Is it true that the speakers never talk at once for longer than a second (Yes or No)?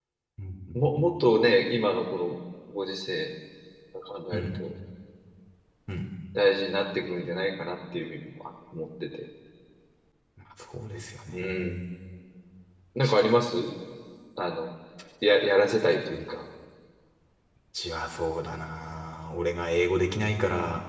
Yes